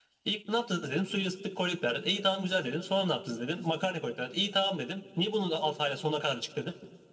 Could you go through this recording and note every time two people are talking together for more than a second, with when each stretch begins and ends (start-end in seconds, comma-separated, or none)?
none